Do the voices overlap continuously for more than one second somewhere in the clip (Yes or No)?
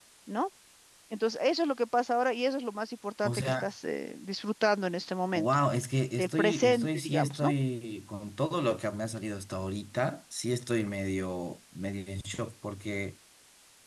Yes